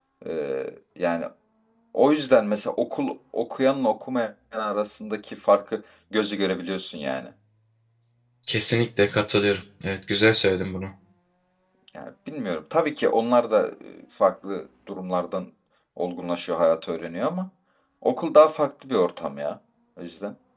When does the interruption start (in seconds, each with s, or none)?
none